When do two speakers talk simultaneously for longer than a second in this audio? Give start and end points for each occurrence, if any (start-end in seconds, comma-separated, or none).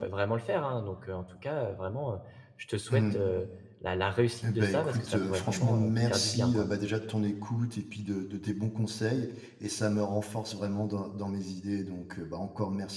4.4-6.7